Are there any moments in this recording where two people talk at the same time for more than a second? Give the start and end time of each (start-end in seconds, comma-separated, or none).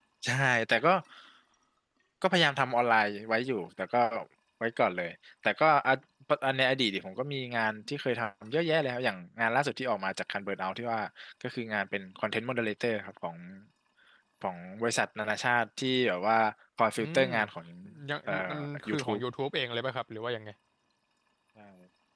none